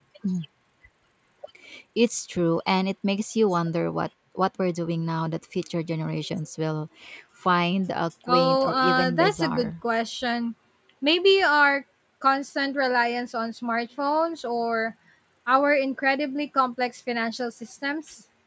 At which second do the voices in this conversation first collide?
8.3 s

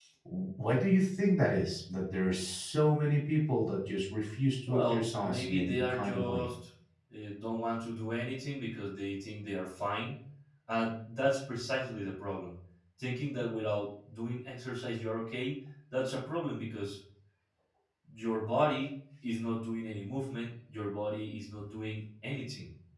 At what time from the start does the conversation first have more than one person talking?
4.7 s

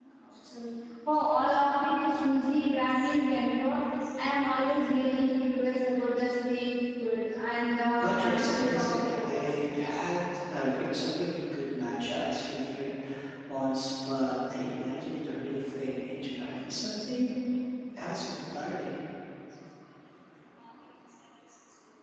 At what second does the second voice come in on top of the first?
8.0 s

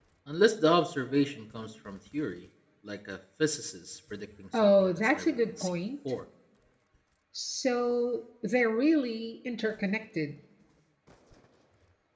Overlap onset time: 4.5 s

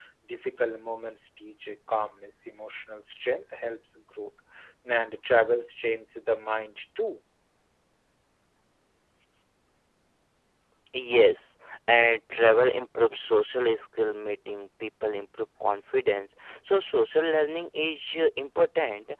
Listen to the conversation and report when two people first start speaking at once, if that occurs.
none

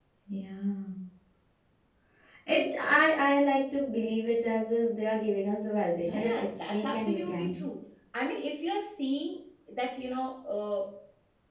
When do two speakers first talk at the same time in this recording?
6.0 s

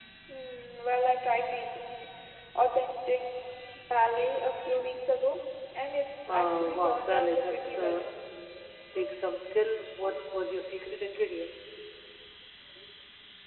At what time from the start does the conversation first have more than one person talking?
6.3 s

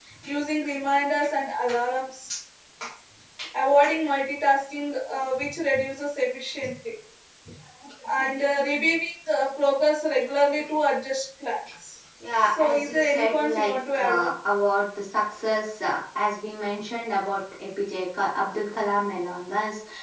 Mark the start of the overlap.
12.6 s

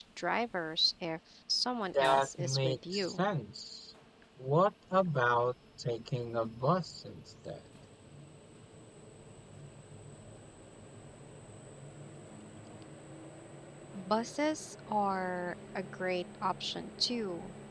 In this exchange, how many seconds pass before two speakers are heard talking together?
1.9 s

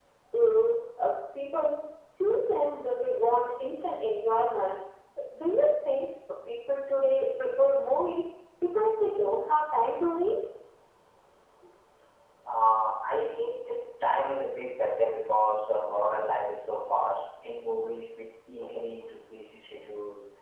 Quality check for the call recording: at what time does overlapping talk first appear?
none

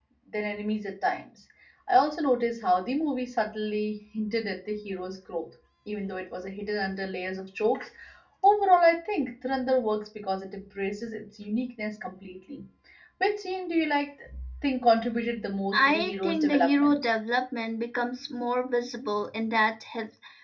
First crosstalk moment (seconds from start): 15.7 s

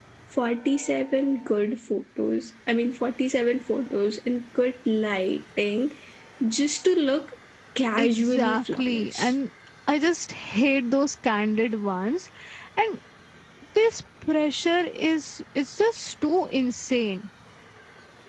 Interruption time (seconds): 8.0 s

